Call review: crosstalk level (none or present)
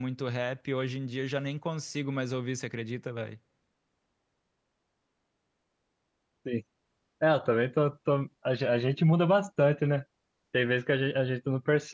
none